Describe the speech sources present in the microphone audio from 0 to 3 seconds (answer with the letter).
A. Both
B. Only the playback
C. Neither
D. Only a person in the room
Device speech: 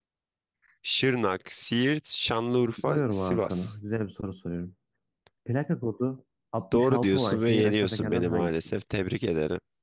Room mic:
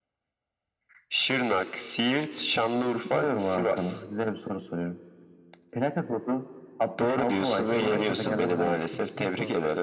B